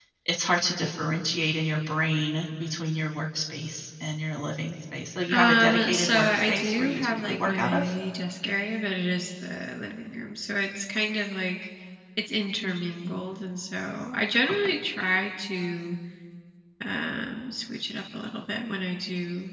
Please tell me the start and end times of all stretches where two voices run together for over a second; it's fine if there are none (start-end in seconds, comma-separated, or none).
5.3-7.9